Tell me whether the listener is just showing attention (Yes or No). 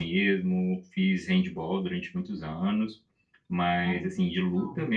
Yes